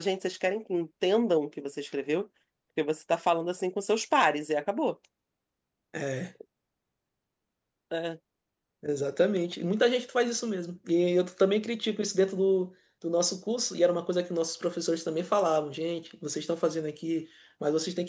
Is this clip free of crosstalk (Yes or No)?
Yes